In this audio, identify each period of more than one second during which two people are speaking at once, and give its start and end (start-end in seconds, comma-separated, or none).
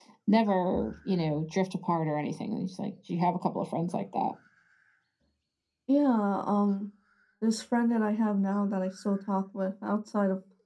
none